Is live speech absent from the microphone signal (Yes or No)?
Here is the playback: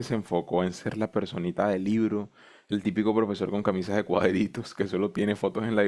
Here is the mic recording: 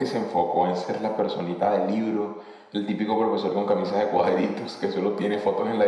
Yes